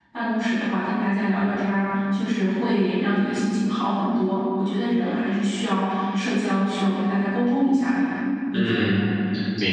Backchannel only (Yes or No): No